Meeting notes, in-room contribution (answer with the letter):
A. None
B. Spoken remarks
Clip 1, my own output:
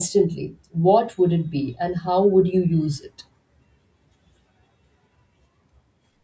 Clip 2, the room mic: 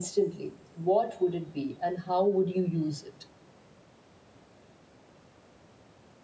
A